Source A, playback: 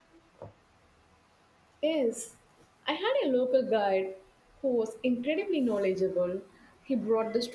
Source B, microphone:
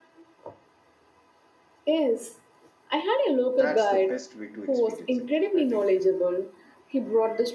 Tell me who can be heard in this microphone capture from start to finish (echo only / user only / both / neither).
both